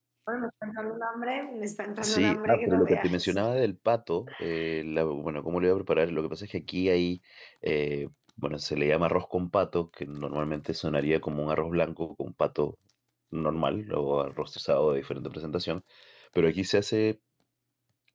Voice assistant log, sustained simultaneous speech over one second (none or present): present